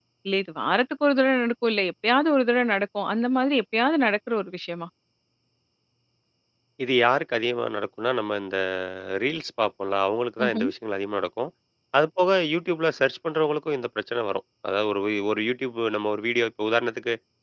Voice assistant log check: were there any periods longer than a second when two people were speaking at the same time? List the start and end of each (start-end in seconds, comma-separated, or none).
none